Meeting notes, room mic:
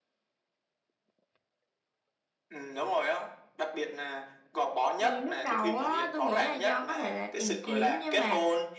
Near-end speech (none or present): present